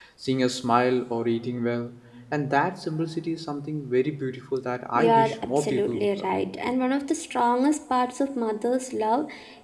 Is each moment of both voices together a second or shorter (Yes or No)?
No